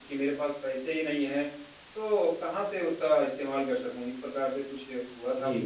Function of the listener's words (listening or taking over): taking over